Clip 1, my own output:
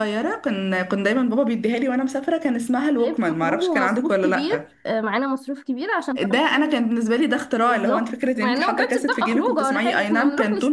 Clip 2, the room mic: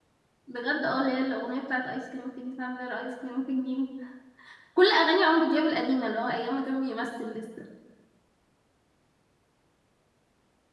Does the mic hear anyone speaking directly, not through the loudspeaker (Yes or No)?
Yes